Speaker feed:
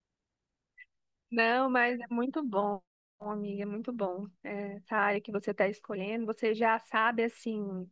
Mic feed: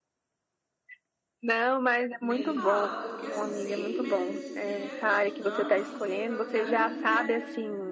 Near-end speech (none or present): present